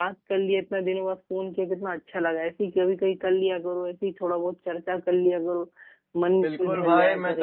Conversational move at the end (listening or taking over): taking over